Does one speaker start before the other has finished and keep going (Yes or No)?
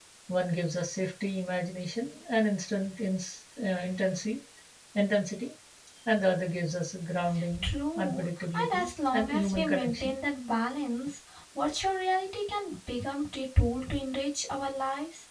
Yes